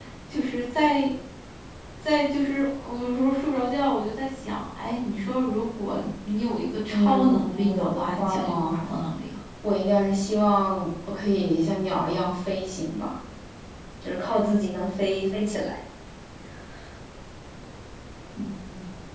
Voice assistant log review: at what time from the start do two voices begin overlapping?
7 s

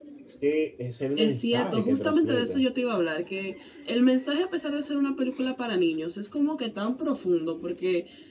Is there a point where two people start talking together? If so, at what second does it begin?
1 s

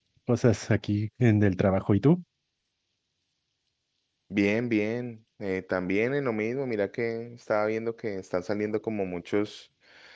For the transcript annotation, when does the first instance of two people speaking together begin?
none

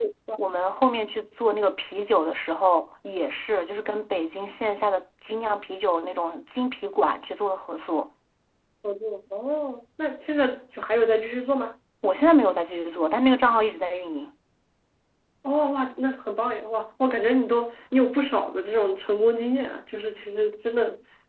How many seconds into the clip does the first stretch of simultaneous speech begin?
none

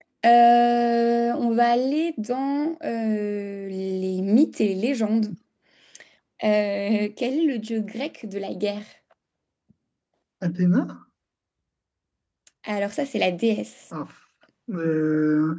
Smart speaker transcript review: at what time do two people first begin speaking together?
none

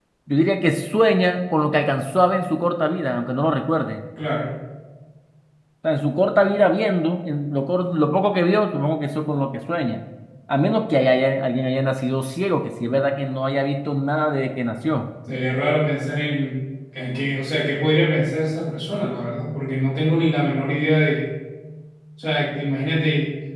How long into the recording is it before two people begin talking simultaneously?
none

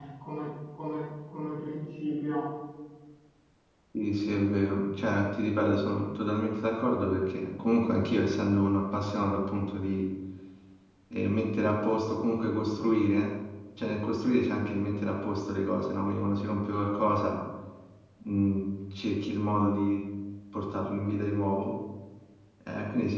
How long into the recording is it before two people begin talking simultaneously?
none

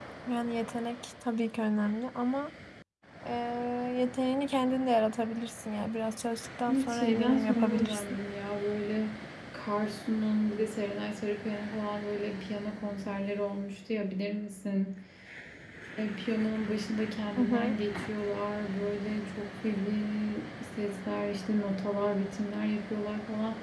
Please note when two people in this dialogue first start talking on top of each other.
7 s

